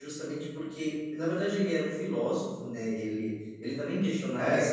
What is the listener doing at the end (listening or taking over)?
taking over